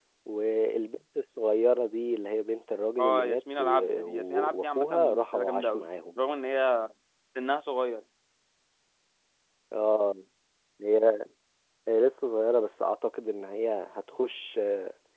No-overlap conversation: No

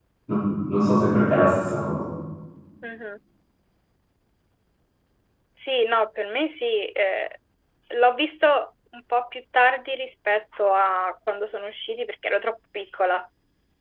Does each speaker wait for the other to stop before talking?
Yes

